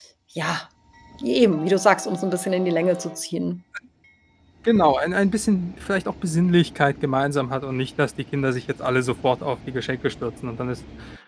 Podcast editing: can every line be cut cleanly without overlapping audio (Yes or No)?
Yes